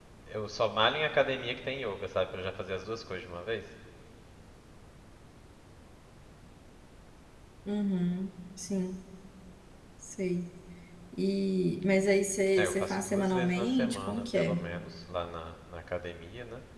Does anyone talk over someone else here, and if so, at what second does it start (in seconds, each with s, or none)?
12.6 s